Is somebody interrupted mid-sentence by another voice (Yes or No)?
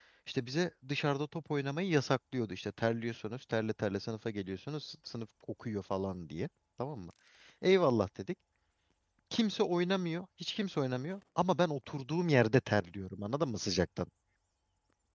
No